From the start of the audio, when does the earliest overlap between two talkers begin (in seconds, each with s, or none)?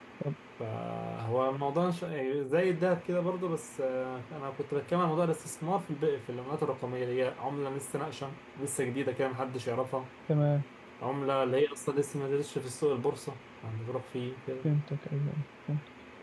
none